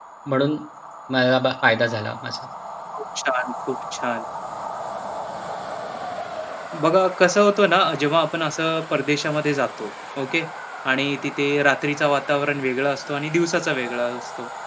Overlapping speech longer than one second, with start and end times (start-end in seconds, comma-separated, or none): none